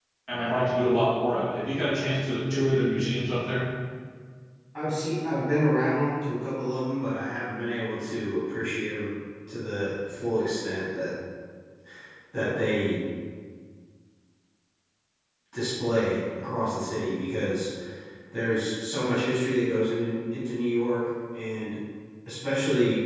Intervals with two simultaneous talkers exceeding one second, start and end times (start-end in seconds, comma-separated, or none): none